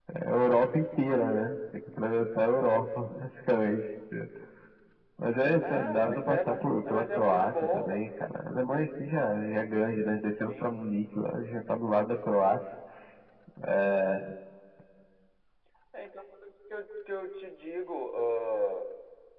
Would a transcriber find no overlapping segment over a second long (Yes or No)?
No